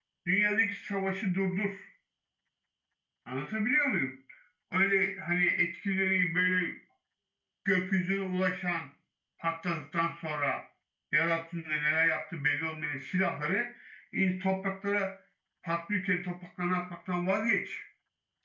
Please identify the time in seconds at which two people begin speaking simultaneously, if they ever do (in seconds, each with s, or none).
none